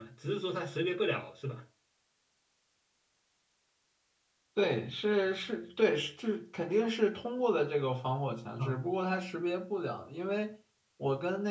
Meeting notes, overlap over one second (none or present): none